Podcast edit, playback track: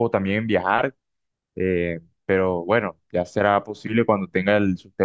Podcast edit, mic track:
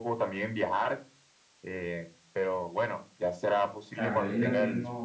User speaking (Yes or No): Yes